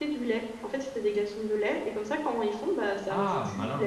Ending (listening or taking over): taking over